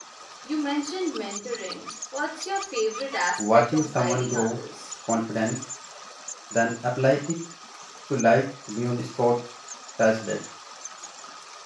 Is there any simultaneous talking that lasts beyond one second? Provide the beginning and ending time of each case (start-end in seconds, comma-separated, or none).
3.4-4.6